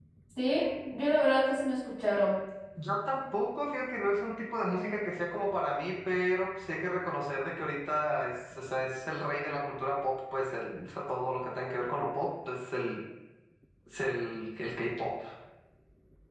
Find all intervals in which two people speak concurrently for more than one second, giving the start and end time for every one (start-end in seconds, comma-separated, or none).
none